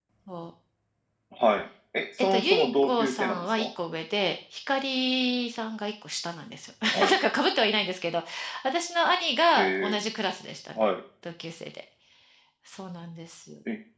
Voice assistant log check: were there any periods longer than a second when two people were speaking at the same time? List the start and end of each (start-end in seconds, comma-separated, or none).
2.3-3.7